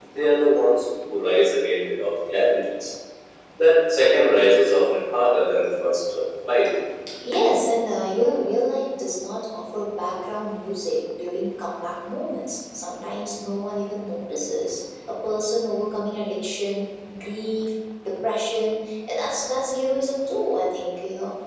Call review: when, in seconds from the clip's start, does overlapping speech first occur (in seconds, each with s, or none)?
none